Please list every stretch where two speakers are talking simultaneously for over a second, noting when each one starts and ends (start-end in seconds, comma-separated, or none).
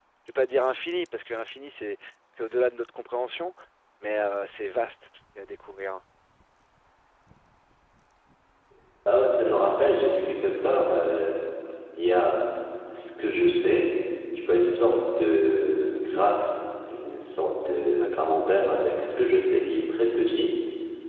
none